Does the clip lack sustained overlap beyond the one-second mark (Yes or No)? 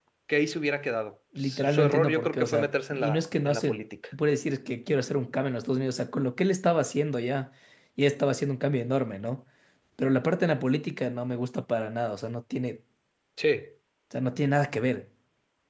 No